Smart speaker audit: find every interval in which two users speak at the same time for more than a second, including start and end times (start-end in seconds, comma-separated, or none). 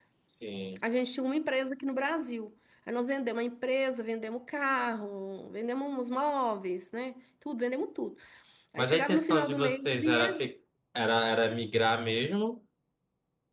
8.8-10.4